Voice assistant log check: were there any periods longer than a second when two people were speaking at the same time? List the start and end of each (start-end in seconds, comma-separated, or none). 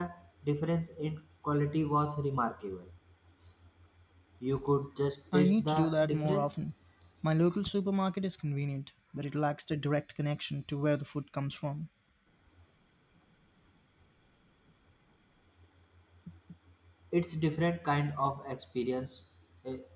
5.3-6.5